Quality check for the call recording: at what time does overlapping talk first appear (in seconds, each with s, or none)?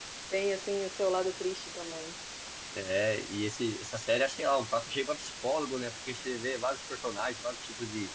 none